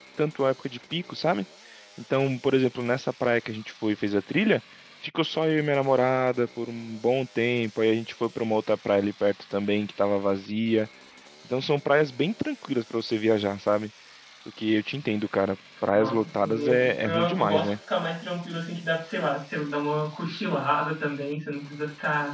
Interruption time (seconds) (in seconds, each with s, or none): 15.9 s